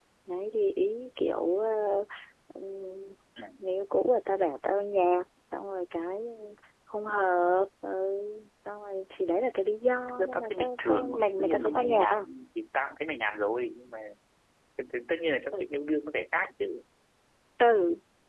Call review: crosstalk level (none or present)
present